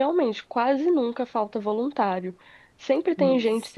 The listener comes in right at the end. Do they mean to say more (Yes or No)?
No